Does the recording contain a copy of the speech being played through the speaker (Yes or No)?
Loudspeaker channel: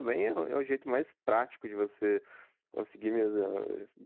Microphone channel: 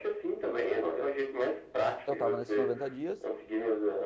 Yes